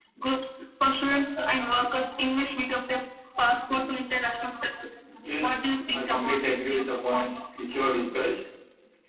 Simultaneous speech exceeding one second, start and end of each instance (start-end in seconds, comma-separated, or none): 5.5-7.7